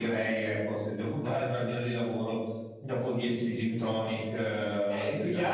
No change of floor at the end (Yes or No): No